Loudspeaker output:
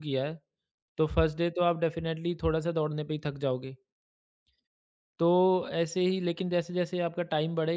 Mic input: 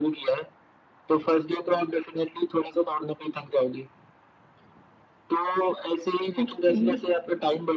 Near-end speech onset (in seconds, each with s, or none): 6.4 s